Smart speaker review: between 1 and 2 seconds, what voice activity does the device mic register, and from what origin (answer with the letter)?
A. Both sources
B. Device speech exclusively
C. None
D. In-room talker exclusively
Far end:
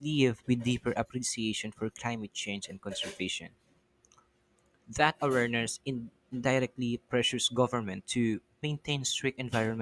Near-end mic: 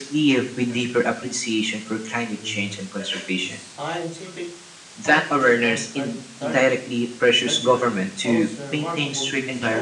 B